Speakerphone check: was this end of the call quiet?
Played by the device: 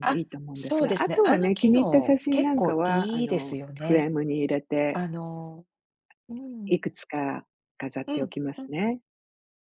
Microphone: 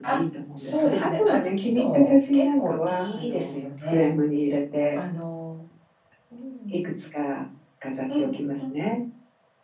Yes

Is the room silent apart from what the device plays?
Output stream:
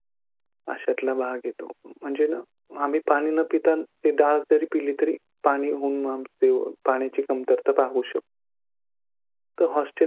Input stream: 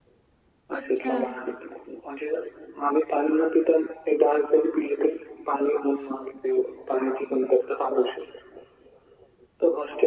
No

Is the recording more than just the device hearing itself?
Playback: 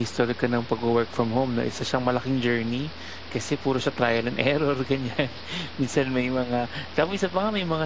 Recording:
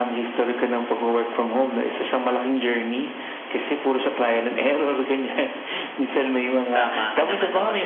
Yes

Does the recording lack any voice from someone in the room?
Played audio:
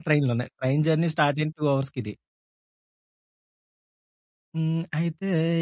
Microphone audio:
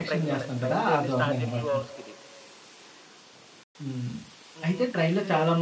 No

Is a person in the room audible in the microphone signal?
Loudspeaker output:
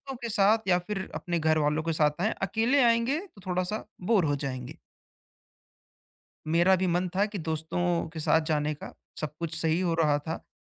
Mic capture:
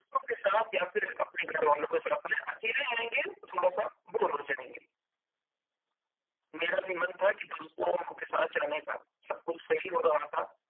No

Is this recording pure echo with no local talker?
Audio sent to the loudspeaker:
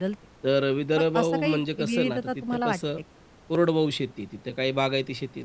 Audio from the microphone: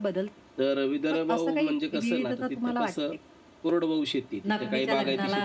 No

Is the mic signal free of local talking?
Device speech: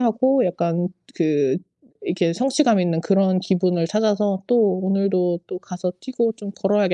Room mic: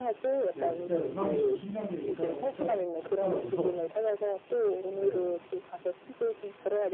No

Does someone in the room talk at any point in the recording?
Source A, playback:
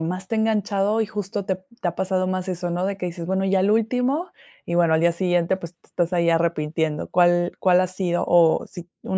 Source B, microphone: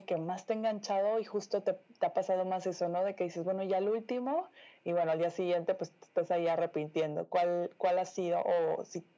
No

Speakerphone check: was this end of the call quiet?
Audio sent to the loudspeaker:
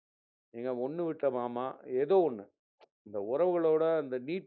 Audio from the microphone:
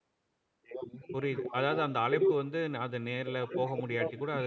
No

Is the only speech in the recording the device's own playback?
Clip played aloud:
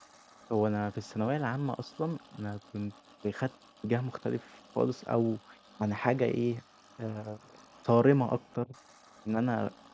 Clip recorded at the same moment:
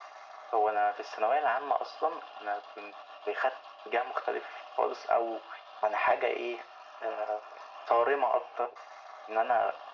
Yes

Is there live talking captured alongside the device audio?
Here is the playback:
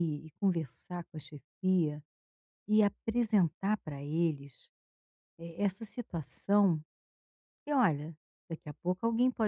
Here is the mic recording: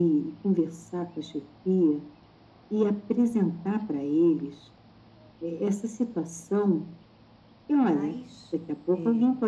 Yes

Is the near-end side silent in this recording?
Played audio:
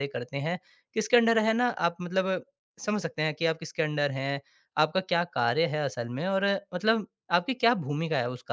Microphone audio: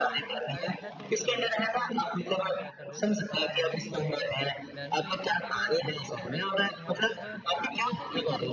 No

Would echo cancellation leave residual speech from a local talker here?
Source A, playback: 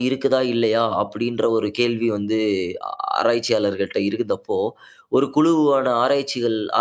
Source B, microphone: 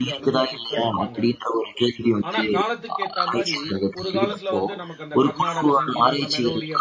Yes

